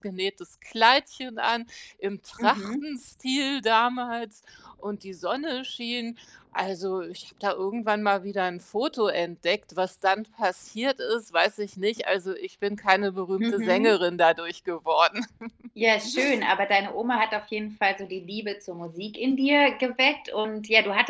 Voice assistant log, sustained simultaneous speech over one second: none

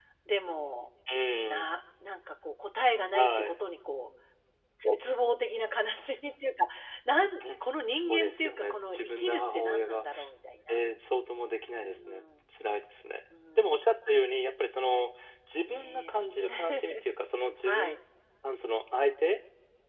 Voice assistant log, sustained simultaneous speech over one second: present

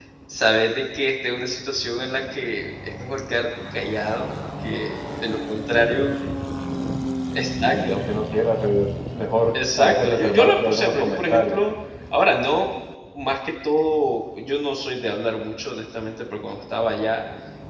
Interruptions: present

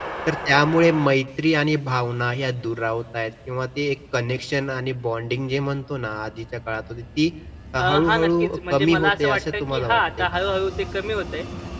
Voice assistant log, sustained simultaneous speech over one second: present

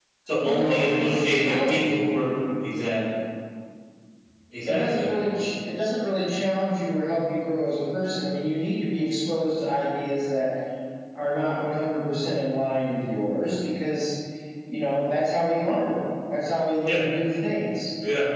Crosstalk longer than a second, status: present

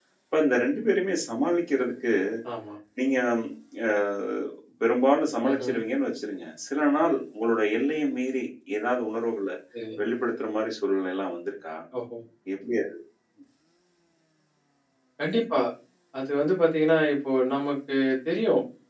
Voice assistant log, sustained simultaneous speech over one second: none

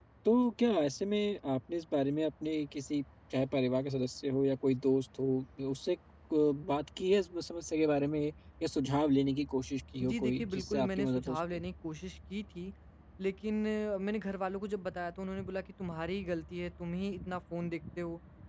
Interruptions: present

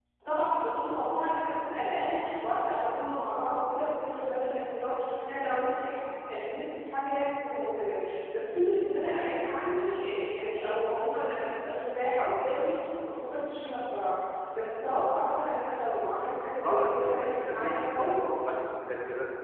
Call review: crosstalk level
present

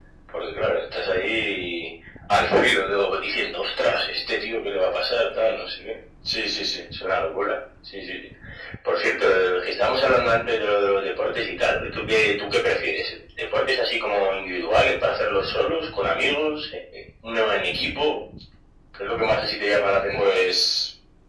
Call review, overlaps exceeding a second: none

